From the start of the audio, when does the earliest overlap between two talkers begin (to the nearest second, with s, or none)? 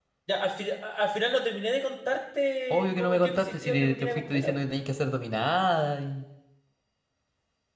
3 s